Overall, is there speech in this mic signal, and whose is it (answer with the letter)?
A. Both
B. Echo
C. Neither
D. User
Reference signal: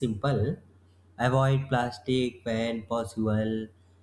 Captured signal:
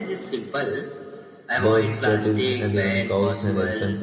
A